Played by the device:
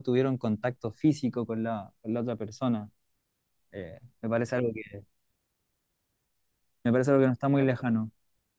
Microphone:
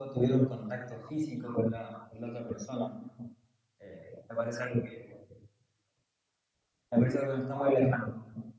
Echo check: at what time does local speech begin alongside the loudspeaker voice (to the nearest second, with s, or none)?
none